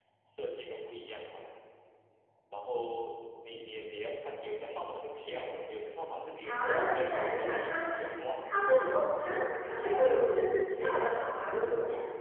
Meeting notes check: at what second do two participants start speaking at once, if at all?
6.4 s

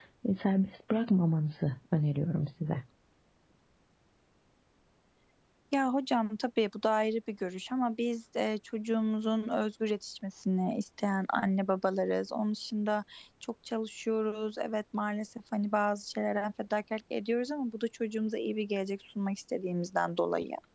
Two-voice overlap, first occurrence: none

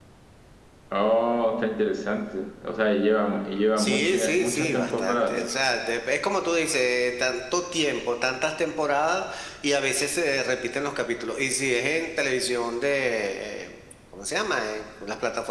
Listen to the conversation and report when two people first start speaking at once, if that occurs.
3.8 s

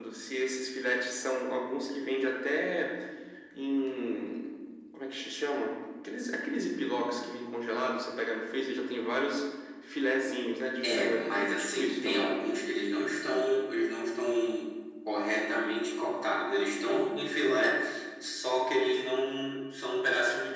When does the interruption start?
10.8 s

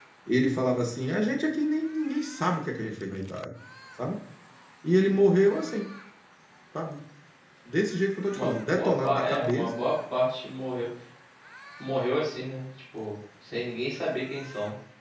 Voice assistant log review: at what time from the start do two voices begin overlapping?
8.3 s

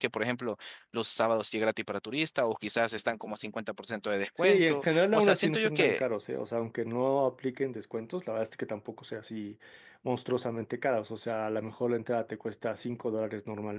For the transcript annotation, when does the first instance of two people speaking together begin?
4.4 s

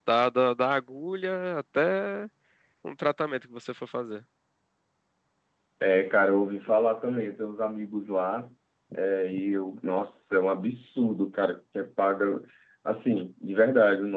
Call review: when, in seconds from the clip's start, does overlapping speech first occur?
none

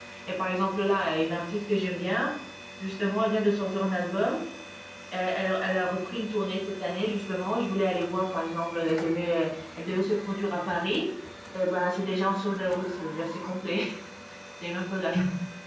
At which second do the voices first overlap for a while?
none

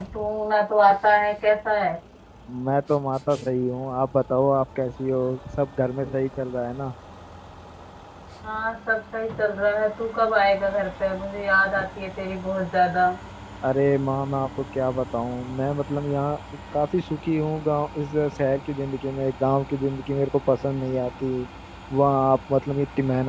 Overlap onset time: none

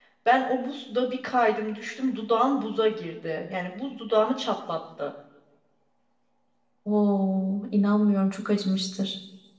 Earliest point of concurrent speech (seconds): none

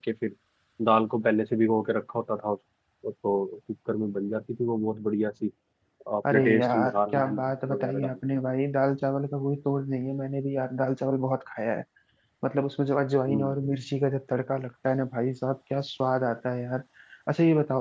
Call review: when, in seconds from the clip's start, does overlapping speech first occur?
6.3 s

